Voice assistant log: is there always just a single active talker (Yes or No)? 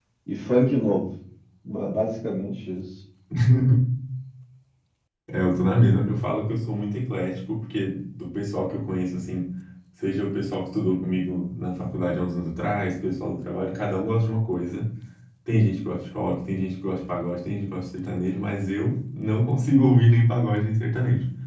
Yes